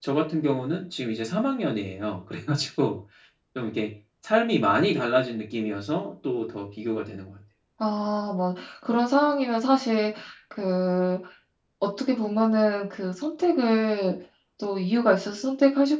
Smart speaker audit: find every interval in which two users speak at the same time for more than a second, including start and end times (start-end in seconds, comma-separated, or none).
none